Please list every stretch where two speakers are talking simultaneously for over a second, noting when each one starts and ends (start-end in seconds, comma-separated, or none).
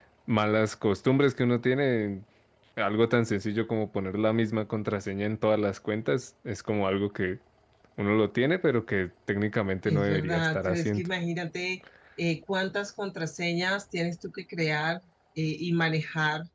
9.8-11.1